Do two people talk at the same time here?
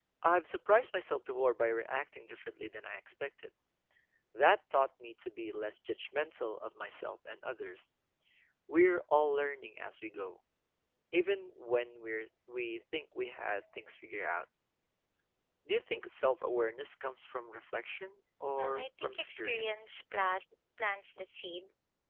Yes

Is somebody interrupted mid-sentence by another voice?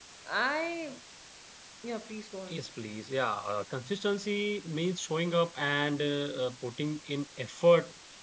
No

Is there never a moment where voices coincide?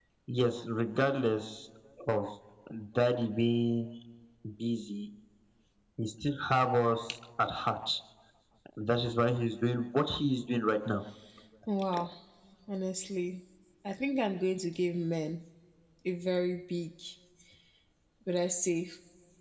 Yes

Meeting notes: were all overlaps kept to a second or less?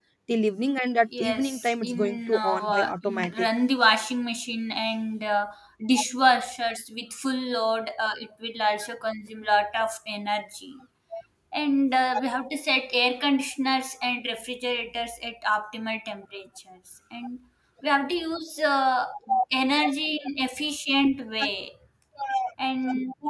No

